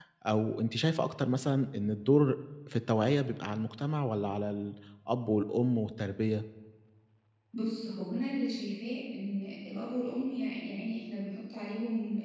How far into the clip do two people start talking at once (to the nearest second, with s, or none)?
none